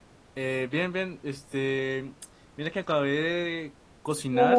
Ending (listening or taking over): listening